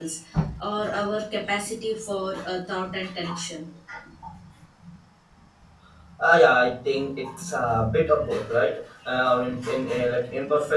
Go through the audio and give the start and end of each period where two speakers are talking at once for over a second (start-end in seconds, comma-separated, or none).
none